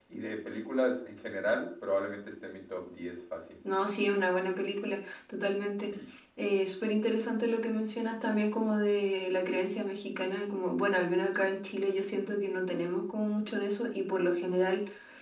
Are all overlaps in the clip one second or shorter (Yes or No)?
Yes